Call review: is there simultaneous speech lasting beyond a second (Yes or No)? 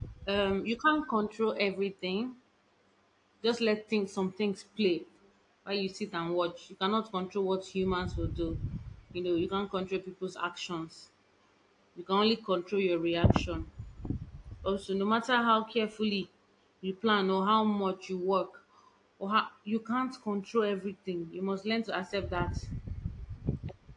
No